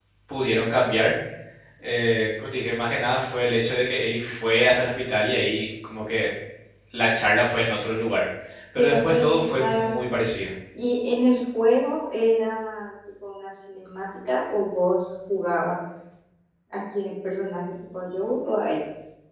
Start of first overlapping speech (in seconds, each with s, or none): 8.8 s